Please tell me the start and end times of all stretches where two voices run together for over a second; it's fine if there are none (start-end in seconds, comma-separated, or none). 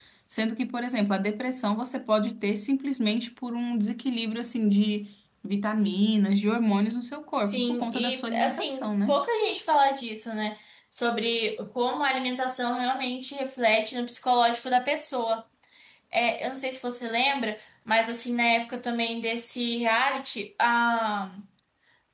7.3-9.2